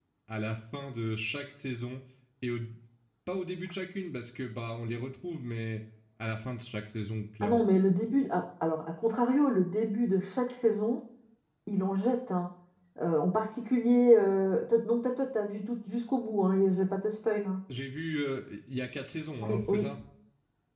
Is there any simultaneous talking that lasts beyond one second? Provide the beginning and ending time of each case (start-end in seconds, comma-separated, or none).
none